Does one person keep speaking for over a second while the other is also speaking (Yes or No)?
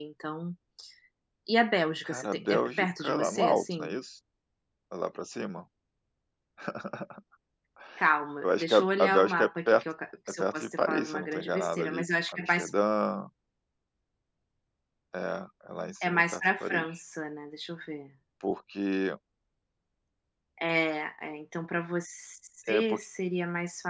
Yes